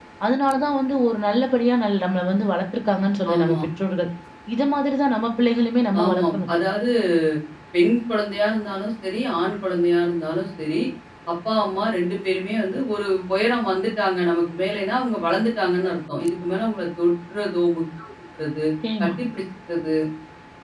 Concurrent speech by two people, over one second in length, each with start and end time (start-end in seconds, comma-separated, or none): none